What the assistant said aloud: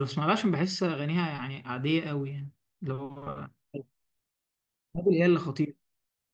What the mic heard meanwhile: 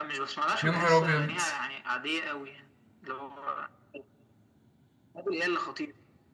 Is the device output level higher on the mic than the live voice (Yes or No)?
No